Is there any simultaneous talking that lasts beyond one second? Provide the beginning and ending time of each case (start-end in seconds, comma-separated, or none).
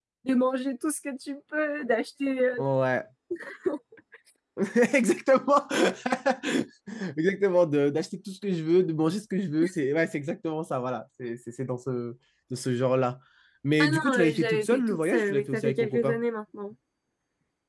13.8-16.2